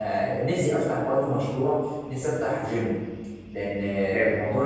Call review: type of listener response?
listening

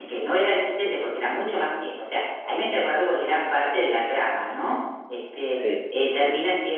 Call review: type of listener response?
listening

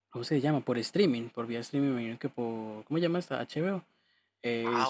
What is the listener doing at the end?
taking over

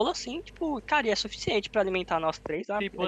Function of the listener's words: taking over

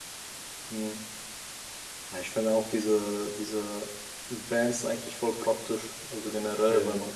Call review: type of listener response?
listening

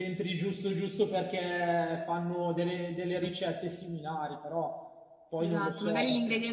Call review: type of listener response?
taking over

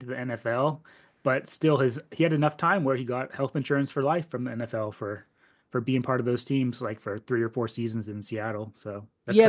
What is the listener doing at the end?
taking over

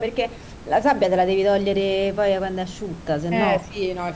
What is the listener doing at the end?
taking over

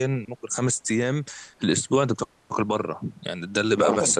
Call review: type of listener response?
taking over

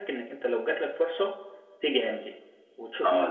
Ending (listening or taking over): taking over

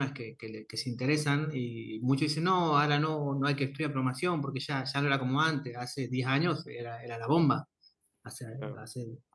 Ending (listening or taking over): taking over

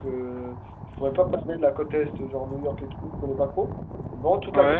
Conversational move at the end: listening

